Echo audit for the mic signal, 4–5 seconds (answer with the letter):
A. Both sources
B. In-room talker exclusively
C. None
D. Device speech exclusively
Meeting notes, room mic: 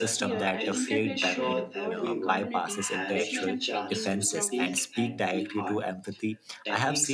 A